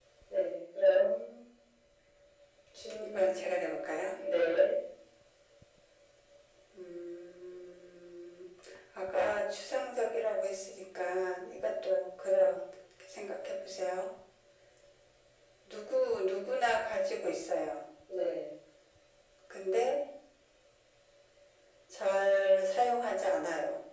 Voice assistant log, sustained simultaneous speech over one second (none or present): none